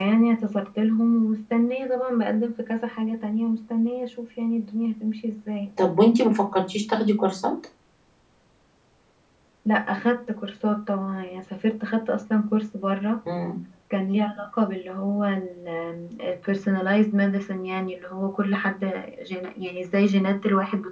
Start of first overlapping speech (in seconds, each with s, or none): none